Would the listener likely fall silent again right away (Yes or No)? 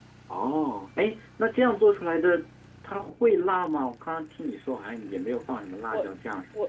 No